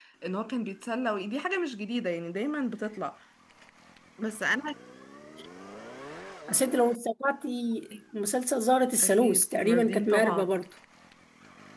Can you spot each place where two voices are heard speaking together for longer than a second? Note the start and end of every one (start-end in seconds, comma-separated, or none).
9.0-10.4